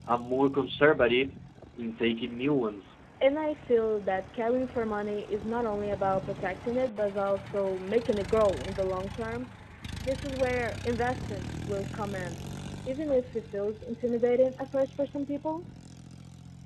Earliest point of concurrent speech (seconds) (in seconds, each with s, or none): none